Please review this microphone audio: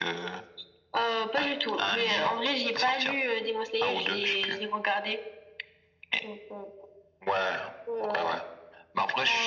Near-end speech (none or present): none